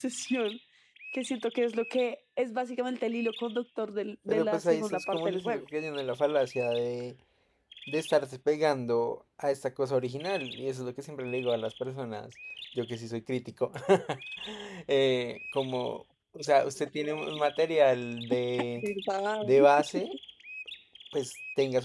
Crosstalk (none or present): present